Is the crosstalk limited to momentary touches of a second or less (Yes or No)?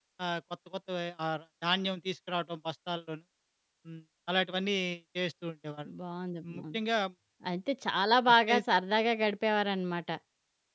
Yes